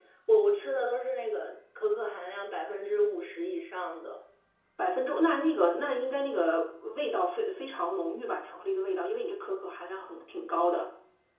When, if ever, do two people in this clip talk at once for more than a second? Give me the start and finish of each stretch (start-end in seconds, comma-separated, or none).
none